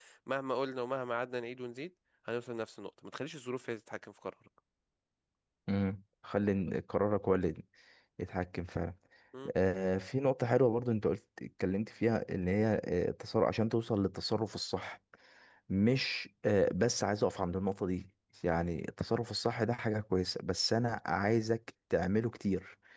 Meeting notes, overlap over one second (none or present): none